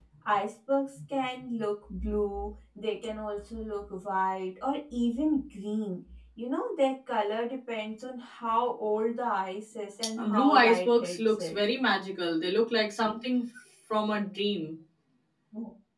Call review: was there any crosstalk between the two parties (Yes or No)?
Yes